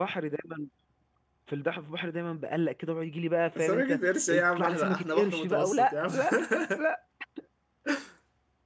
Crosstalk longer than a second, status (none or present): present